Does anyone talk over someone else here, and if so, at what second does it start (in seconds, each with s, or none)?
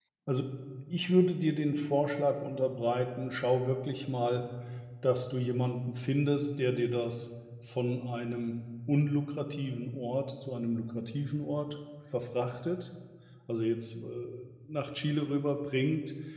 none